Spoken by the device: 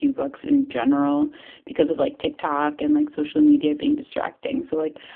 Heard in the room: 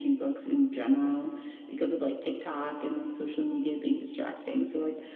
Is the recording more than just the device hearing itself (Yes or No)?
No